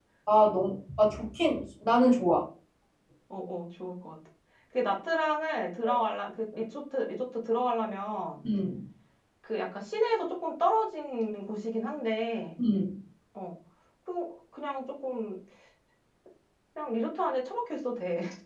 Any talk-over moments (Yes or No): No